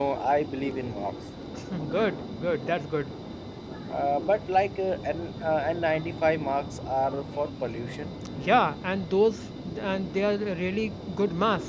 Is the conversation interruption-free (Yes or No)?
Yes